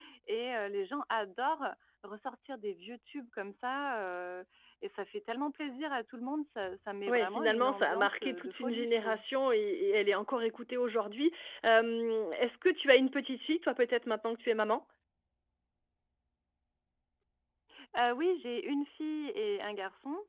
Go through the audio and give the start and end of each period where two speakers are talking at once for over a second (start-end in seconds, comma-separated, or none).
7.1-9.2